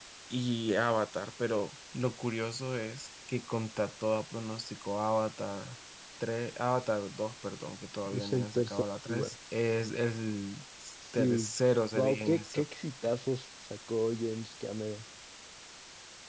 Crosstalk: present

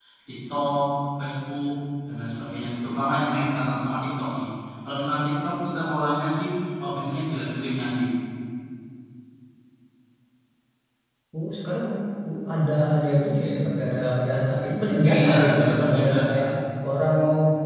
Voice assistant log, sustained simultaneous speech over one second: present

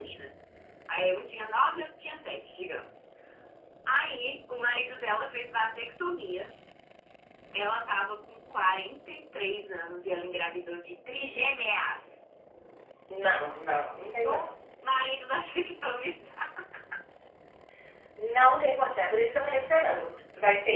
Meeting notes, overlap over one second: none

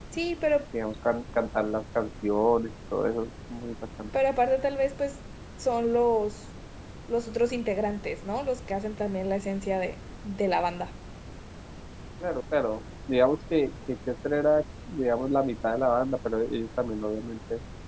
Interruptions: none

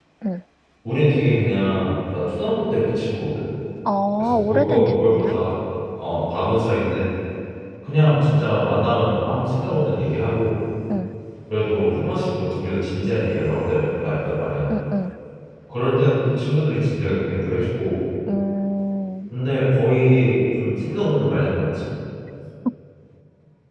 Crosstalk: present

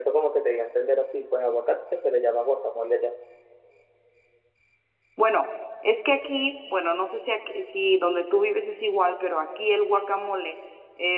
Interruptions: none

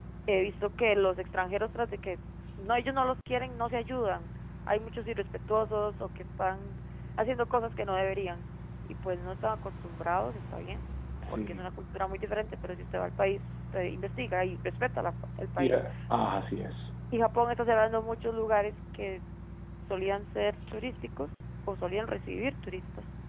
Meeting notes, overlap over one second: none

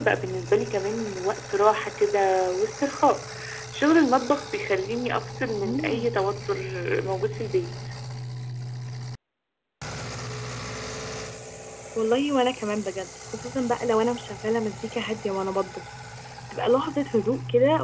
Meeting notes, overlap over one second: none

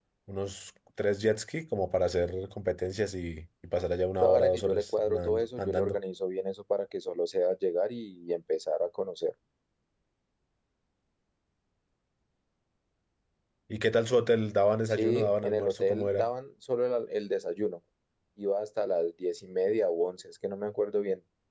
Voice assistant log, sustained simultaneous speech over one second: present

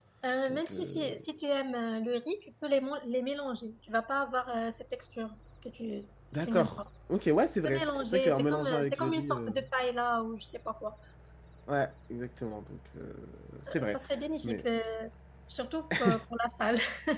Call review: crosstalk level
present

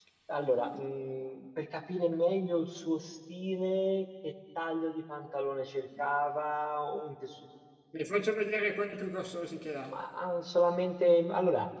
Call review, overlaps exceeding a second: none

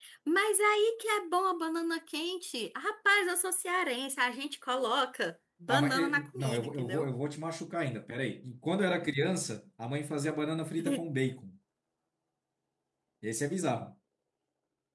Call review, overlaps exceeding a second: present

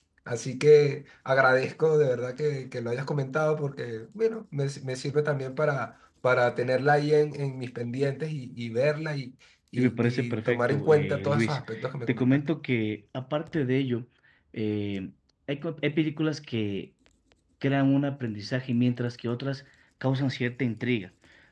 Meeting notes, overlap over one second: present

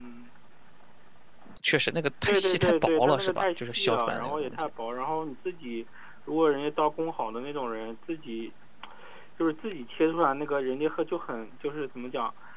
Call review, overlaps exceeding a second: present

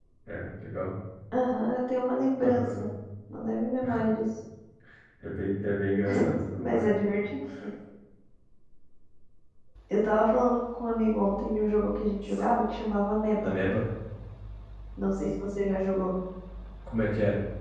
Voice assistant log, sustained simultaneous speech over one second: none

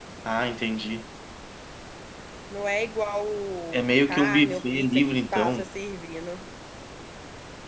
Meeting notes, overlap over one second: present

